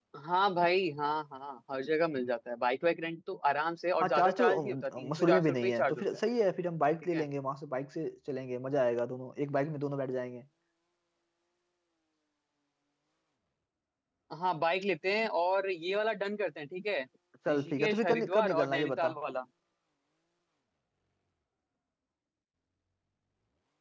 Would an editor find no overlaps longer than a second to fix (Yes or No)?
No